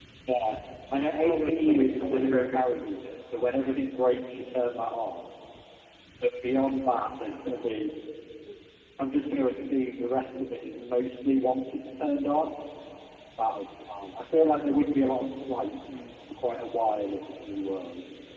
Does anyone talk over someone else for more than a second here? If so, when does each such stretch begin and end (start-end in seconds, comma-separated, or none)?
1.2-2.7